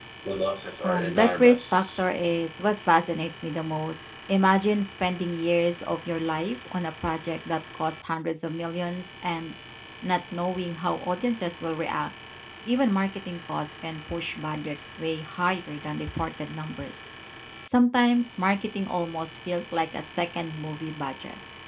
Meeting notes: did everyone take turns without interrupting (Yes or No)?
No